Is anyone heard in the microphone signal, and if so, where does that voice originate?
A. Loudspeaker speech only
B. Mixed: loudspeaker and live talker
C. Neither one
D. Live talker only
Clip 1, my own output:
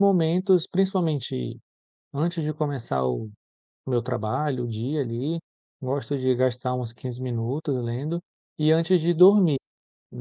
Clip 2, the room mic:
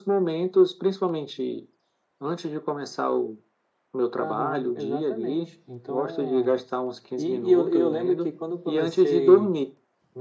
B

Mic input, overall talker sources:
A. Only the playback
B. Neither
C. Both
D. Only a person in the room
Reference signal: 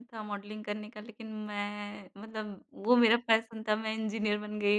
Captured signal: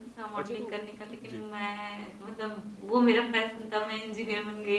C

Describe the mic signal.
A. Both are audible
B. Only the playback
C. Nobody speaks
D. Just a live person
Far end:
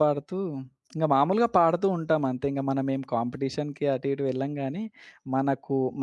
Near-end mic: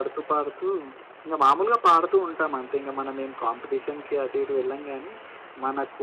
B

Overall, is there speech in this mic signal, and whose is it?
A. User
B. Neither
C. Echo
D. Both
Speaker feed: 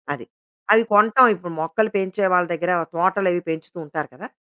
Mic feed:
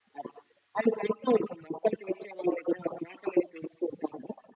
C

